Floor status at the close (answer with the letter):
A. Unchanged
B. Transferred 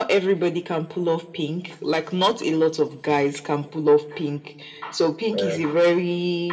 A